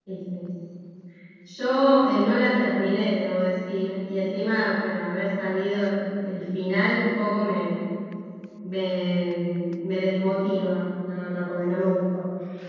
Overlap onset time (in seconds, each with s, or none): none